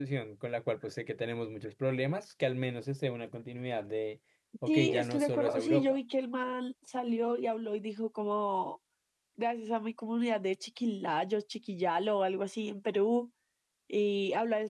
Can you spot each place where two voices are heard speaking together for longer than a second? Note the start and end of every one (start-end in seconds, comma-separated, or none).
4.7-6.0